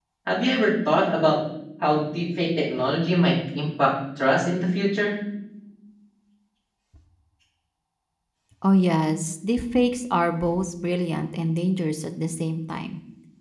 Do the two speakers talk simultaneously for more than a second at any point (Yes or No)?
No